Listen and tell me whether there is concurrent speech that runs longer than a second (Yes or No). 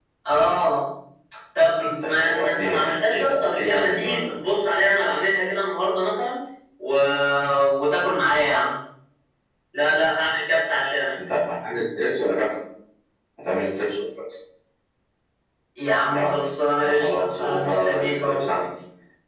Yes